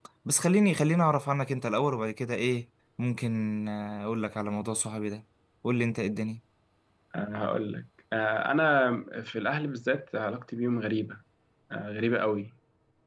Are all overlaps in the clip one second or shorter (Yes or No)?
Yes